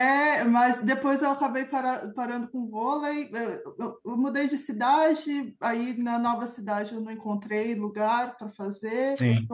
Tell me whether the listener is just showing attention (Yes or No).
Yes